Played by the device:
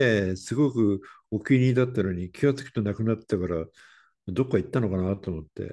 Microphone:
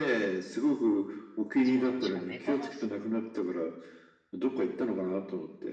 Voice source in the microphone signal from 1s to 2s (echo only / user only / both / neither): both